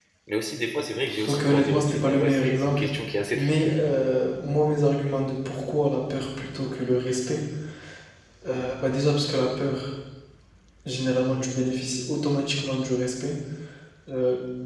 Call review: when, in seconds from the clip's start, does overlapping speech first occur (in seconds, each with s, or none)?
1.3 s